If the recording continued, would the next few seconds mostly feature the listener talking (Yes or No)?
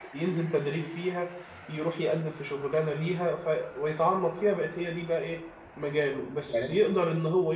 No